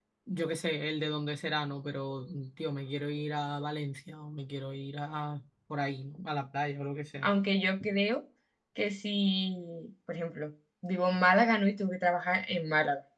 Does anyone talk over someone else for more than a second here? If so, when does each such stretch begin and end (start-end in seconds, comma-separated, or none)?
none